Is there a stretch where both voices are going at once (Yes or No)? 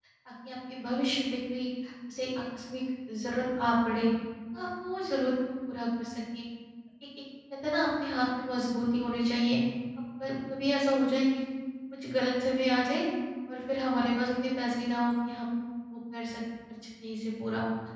No